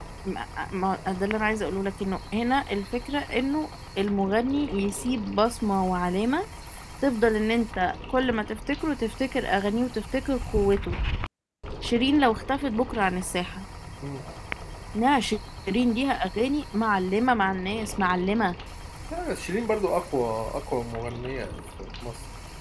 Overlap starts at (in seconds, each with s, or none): none